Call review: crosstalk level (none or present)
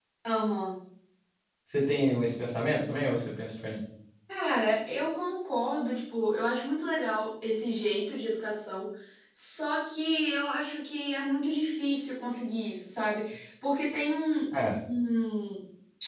none